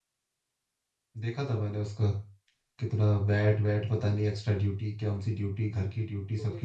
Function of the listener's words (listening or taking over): taking over